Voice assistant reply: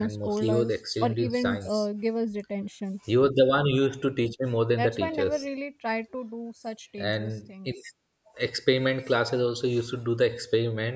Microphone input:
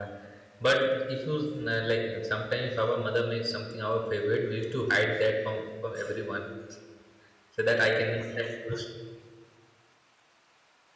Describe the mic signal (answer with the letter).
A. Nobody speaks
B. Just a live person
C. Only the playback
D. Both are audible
B